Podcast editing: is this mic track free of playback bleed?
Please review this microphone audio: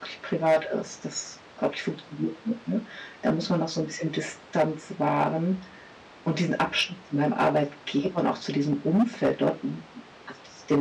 Yes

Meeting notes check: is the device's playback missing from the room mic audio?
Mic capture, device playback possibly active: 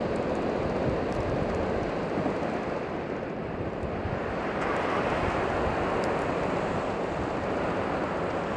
Yes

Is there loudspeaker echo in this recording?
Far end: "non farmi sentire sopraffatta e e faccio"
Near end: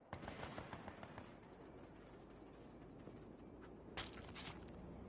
No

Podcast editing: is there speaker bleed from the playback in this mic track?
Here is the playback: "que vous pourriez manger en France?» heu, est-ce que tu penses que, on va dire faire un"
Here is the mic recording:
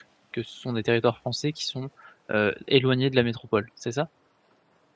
No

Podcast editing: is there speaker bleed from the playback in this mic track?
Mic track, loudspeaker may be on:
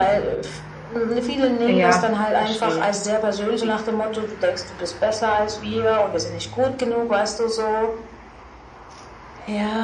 Yes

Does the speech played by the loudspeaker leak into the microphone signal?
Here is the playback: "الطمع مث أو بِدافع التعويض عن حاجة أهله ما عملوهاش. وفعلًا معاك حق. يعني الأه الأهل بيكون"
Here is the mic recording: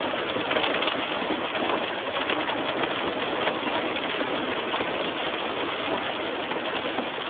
No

